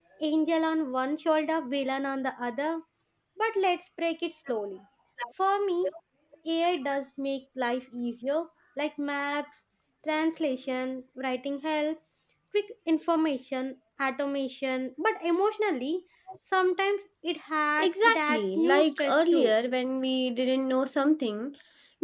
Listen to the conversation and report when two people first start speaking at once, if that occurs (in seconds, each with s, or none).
17.8 s